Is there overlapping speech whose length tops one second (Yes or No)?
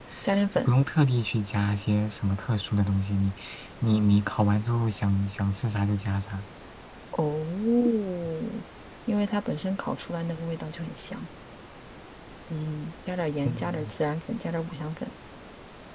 No